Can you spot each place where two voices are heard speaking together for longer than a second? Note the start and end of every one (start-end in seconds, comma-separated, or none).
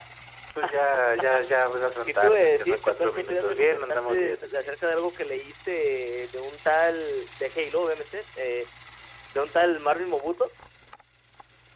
2.1-4.7